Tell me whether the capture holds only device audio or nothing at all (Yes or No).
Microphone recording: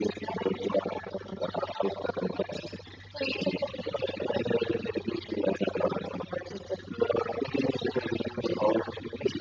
Yes